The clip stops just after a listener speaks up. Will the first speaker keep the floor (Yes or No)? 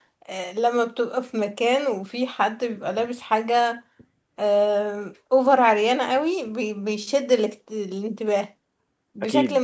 Yes